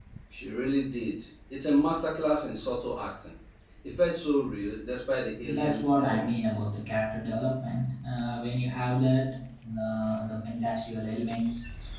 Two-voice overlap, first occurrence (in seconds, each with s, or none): 5.4 s